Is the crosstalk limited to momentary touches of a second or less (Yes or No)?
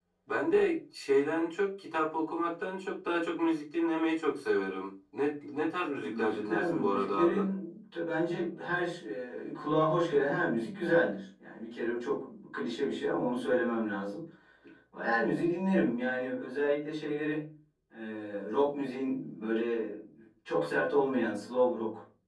No